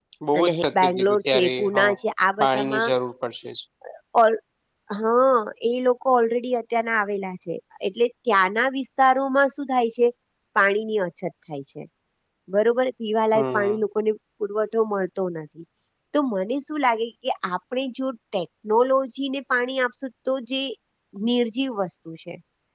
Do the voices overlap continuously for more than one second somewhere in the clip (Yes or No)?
Yes